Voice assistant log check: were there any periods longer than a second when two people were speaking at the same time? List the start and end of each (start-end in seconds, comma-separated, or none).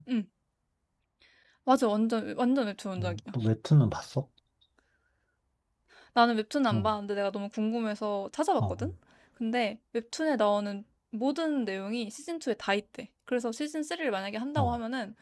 none